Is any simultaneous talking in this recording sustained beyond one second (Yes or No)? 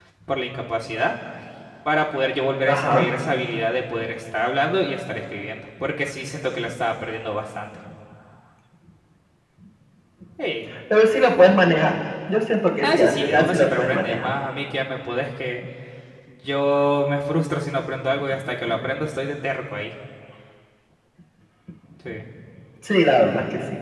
Yes